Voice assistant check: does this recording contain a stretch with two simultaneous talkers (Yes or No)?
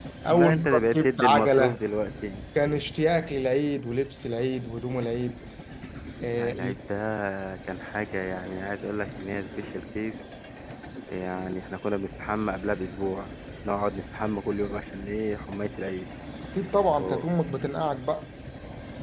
Yes